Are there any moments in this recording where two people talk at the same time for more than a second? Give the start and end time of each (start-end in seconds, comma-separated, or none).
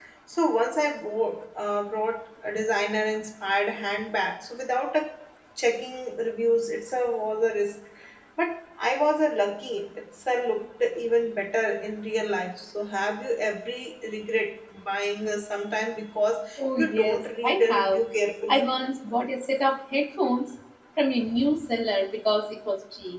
16.8-18.0